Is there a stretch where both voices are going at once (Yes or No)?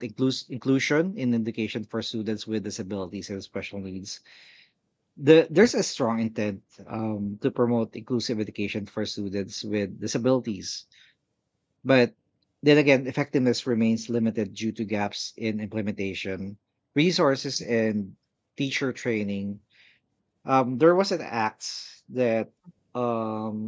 No